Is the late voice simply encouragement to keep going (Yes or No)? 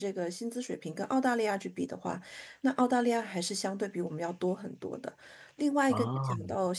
Yes